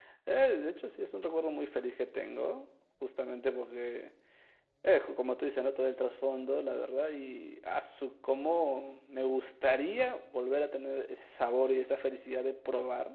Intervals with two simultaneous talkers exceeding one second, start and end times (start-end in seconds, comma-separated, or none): none